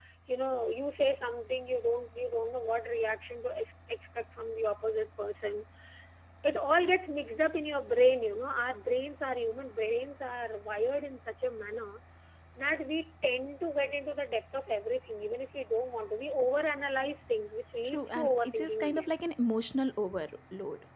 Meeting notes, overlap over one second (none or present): present